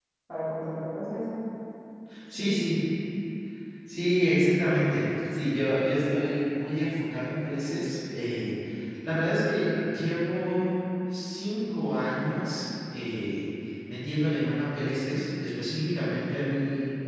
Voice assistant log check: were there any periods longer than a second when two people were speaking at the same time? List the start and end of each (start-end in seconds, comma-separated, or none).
none